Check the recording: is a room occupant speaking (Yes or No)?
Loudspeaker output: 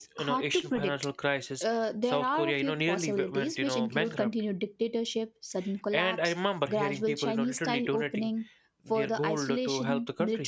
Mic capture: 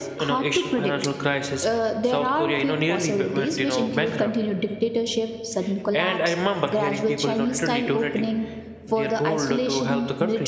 No